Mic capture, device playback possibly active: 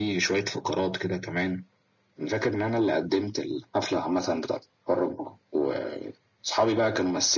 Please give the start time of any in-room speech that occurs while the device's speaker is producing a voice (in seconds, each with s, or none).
none